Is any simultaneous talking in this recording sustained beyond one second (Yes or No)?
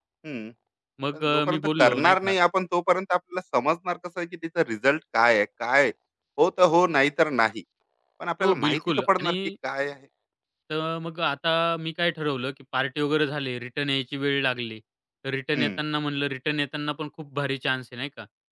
Yes